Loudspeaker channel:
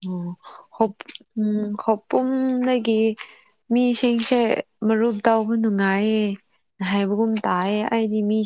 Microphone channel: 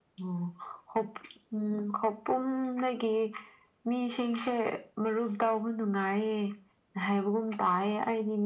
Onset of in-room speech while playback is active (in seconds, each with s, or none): none